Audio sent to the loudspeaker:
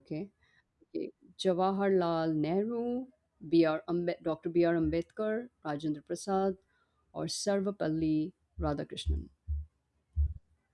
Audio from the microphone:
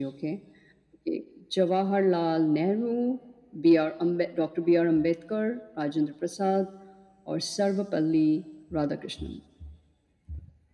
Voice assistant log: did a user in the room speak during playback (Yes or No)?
No